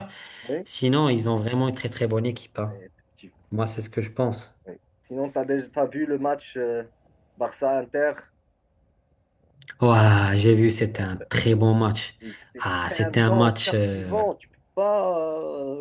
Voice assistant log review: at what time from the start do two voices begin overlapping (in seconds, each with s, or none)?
12.9 s